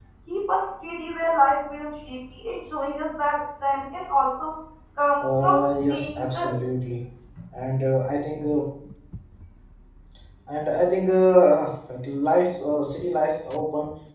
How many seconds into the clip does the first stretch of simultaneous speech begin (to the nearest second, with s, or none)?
5 s